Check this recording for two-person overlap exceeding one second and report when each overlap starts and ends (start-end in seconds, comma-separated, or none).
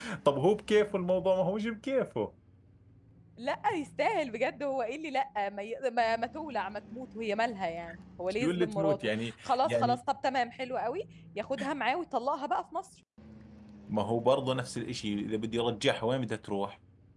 8.4-10.0